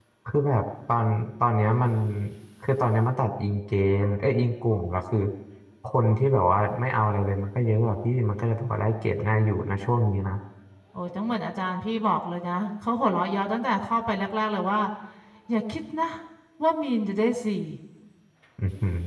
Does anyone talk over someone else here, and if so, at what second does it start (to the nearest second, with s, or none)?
none